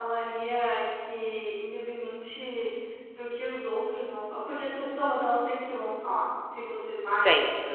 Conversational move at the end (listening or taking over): listening